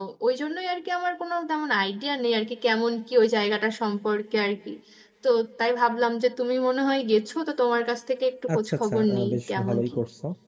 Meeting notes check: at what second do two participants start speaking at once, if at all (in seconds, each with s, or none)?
8.5 s